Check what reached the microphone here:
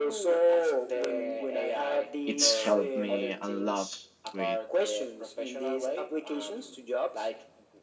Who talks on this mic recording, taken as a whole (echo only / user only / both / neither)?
both